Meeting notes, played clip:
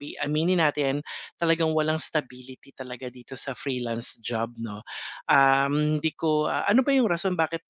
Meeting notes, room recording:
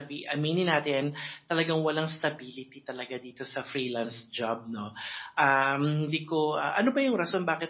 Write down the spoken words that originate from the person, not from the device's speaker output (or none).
none